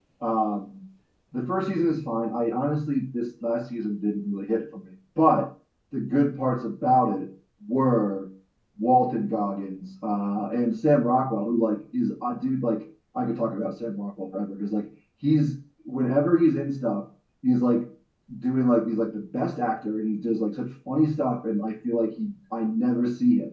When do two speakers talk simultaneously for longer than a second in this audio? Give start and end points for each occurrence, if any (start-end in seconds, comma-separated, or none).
none